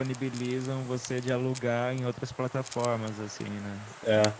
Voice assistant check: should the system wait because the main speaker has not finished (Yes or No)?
Yes